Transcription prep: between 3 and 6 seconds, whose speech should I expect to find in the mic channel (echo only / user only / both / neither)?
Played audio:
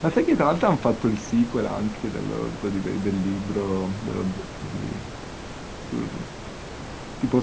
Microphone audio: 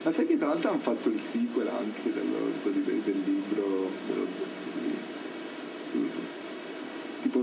echo only